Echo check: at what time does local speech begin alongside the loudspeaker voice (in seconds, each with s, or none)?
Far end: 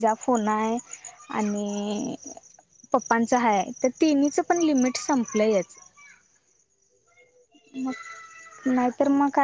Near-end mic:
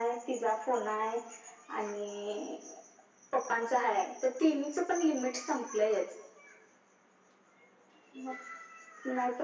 none